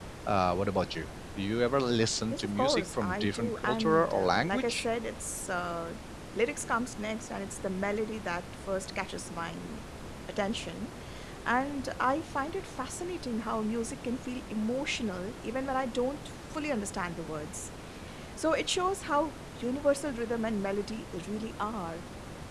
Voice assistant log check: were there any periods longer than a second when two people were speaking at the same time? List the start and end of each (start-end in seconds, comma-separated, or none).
2.3-4.8